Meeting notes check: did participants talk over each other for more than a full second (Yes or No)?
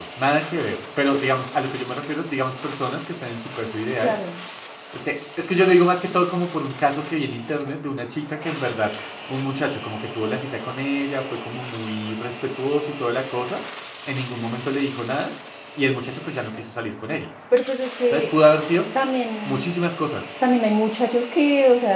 No